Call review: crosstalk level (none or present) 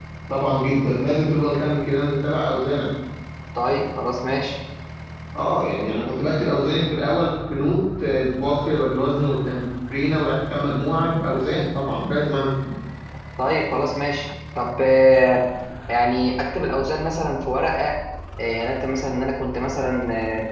none